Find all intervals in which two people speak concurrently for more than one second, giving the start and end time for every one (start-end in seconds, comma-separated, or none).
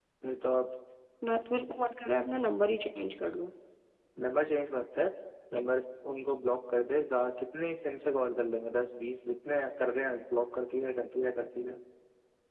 none